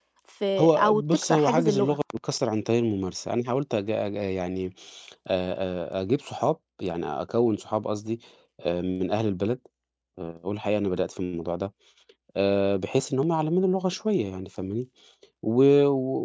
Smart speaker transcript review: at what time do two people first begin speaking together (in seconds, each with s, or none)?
0.6 s